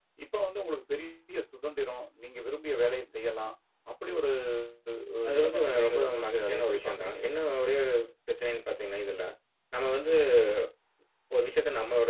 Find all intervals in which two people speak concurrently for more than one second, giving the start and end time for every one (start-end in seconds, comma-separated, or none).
5.3-7.2